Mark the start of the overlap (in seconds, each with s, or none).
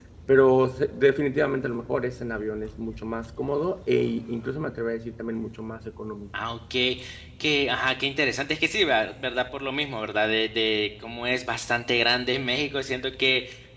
none